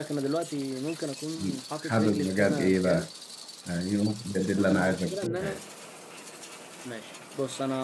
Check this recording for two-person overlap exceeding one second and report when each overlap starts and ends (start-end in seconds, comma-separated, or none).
1.8-3.1, 4.4-5.6